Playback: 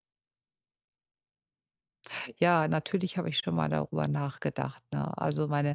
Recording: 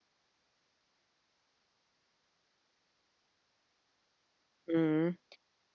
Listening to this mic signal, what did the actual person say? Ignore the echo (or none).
Mhm.